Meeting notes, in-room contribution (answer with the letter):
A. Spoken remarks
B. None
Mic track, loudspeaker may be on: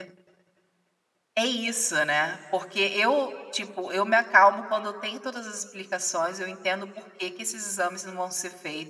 A